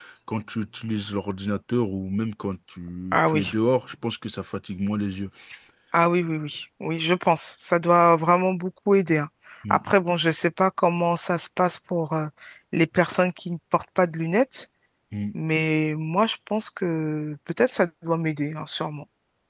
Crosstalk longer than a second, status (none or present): none